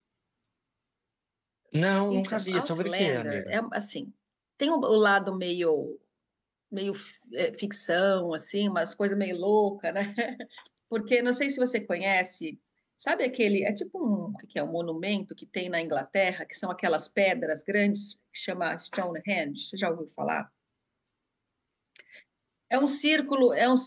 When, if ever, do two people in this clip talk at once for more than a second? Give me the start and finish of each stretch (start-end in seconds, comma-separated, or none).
2.1-3.5